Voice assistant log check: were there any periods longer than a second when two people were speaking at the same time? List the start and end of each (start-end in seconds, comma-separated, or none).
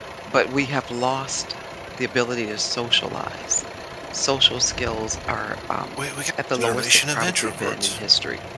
6.5-8.0